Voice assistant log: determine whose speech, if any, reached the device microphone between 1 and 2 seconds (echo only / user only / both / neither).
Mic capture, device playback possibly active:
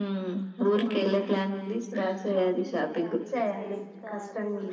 echo only